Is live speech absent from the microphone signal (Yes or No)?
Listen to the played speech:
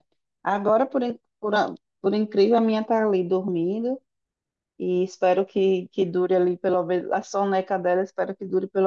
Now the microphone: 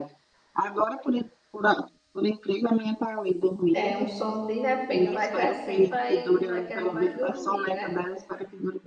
No